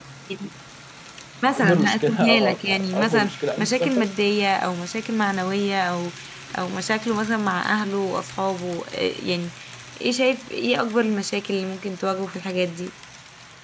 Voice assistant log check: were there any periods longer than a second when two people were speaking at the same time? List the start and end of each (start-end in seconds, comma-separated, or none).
1.6-4.1